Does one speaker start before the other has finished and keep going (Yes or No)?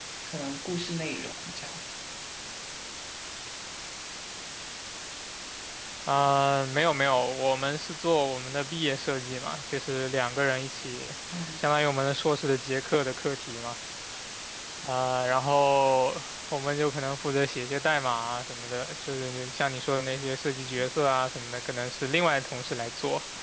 No